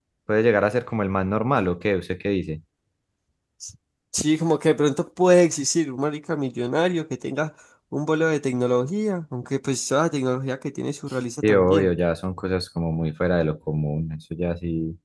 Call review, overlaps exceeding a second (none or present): none